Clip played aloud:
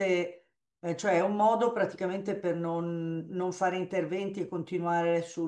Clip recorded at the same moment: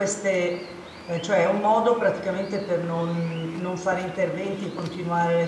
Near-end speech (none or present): none